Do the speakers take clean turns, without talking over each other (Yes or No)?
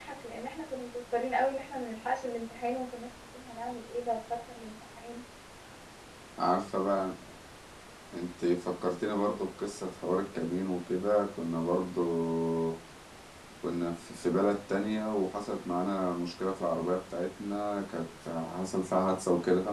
Yes